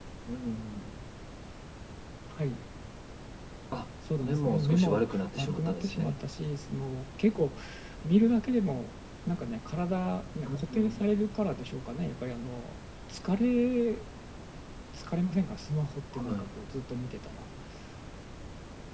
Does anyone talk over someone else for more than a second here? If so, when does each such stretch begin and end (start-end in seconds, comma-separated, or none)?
4.2-6.1